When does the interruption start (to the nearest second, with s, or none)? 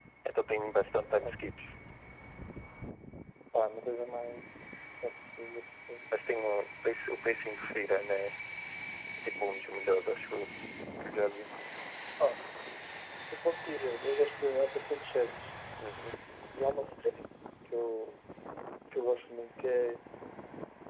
none